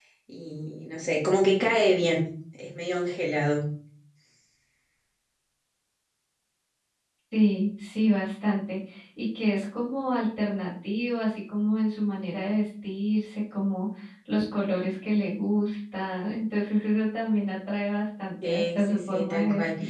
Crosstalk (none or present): present